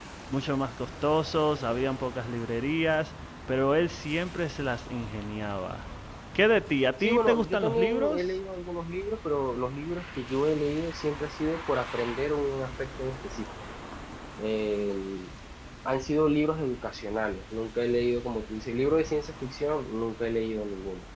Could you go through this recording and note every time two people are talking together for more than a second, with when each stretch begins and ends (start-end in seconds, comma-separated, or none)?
7.0-8.3